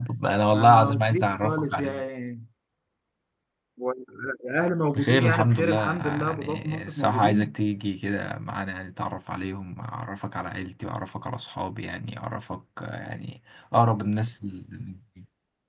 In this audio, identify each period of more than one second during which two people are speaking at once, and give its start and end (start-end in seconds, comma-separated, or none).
0.5-2.0, 5.0-7.5